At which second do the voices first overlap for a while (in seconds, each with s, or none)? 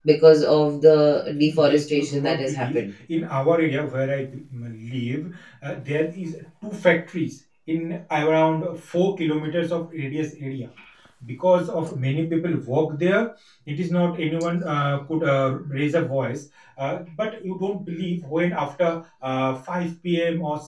1.4 s